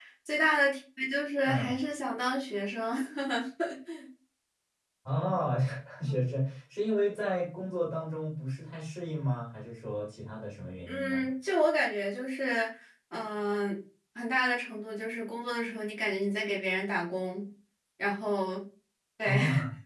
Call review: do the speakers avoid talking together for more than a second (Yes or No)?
Yes